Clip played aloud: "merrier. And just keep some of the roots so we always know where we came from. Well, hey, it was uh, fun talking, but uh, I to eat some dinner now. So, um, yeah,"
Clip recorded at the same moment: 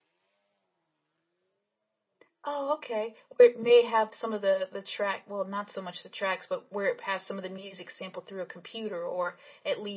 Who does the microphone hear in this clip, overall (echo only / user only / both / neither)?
user only